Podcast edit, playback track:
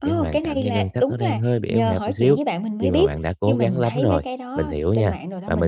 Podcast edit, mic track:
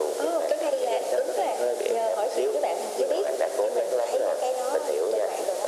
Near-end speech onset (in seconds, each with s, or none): none